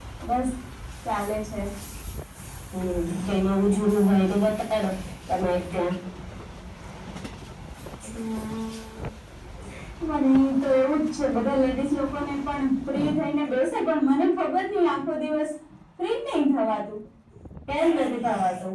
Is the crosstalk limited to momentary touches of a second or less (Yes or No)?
Yes